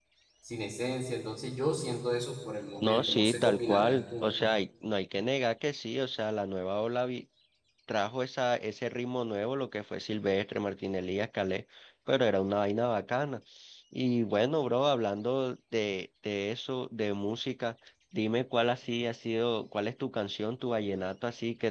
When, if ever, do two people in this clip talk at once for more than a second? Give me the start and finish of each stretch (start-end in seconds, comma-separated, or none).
2.8-4.3